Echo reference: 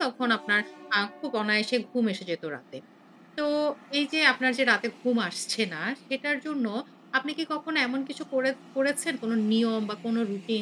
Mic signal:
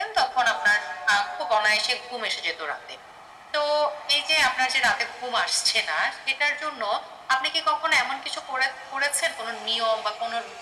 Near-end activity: none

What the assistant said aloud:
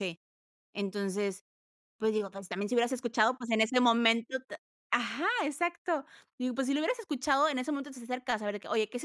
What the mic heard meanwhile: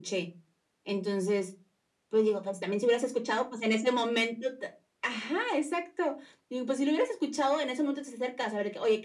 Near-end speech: none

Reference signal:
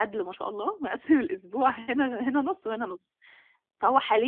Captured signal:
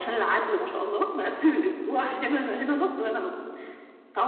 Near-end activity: none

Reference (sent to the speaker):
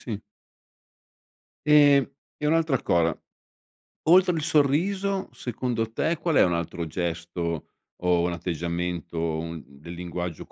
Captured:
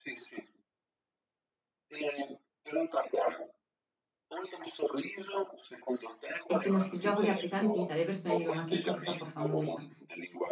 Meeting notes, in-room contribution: present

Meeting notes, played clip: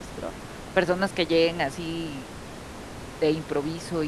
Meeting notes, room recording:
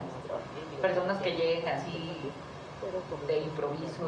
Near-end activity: present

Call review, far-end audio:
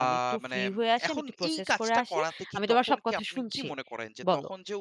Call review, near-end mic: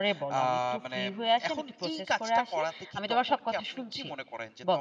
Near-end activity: none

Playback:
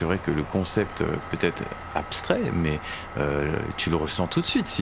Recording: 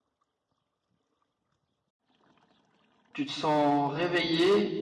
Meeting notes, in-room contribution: present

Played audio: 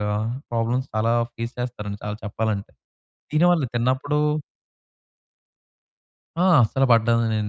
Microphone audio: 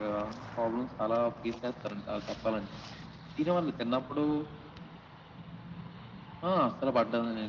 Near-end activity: none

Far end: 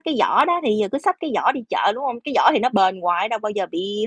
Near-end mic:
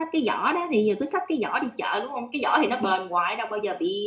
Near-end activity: none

